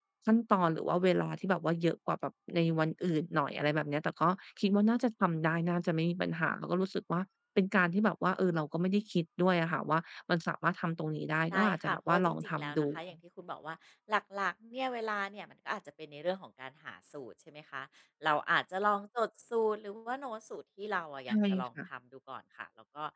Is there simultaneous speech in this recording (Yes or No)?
Yes